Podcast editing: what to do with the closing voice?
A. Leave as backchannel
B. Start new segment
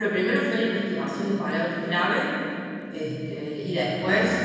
A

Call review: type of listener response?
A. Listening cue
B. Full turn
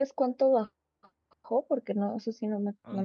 B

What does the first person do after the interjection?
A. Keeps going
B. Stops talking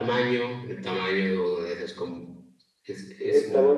B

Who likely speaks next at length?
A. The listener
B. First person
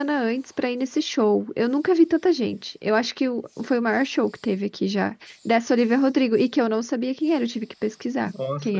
A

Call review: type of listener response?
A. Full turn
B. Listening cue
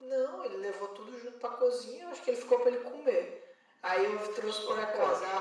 B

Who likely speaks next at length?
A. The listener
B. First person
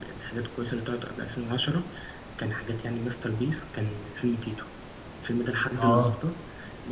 B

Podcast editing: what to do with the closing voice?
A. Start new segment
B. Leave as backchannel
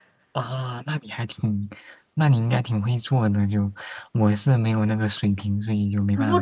A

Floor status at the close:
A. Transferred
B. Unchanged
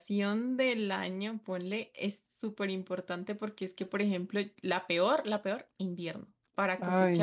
B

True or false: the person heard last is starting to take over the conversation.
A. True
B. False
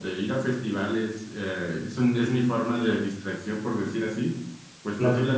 B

